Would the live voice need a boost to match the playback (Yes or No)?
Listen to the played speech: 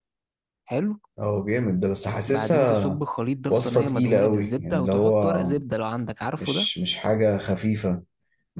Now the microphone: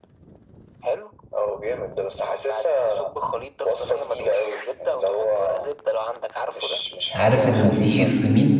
No